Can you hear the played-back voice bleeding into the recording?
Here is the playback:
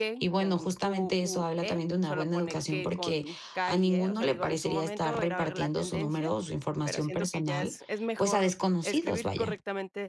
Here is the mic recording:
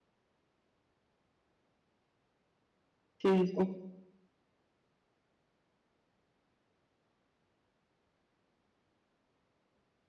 No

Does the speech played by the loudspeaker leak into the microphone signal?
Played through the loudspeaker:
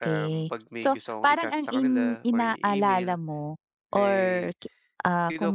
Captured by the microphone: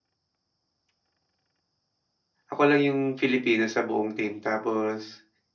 No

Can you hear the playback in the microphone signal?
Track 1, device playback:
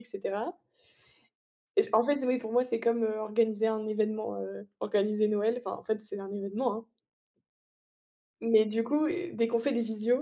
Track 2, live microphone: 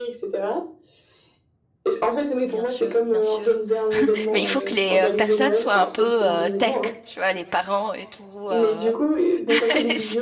Yes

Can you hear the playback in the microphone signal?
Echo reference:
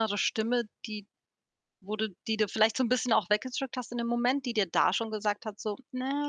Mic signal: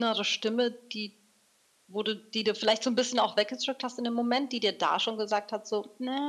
Yes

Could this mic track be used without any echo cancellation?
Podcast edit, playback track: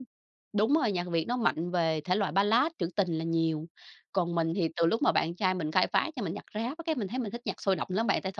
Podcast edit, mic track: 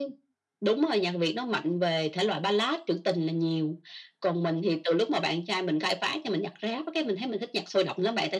No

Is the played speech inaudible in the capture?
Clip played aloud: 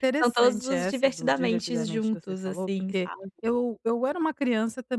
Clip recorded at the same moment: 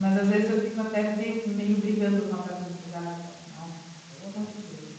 Yes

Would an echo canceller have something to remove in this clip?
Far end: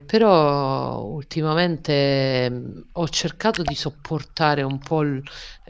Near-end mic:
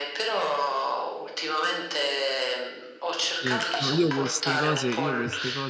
Yes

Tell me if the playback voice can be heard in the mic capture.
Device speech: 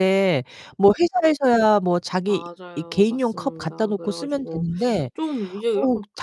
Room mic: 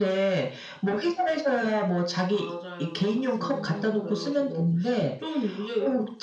Yes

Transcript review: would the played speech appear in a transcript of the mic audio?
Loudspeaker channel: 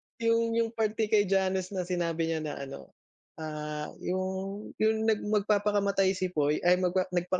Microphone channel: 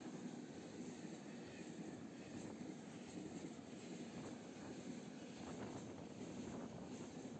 No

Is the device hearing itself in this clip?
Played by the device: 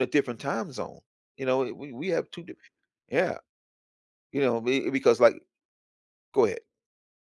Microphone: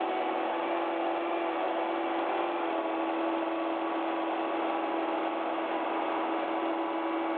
No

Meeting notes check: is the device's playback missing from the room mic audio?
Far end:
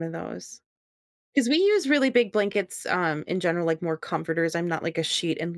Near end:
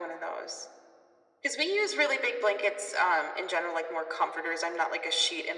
No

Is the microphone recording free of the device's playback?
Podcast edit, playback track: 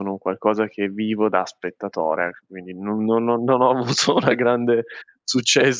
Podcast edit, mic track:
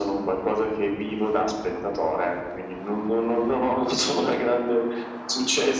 No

